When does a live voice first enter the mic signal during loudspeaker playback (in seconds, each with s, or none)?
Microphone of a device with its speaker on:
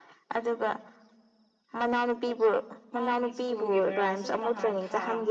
2.9 s